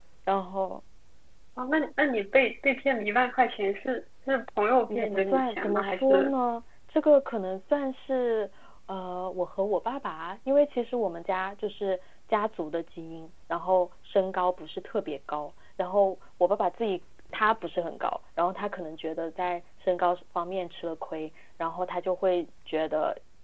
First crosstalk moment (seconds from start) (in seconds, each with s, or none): 4.9 s